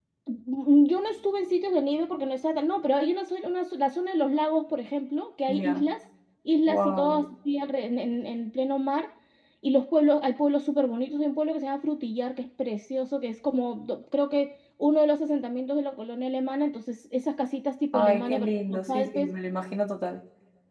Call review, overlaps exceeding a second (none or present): present